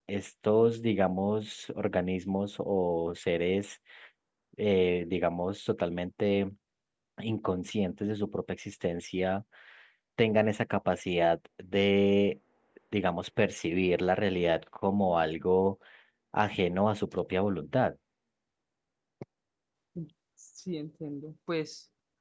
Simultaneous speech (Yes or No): No